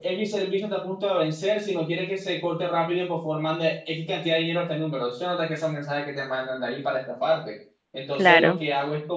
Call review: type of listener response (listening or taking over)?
listening